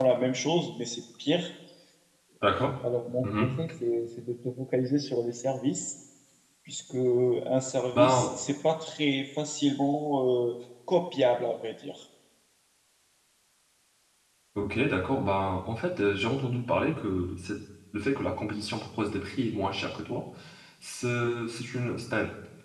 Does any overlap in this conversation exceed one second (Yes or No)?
No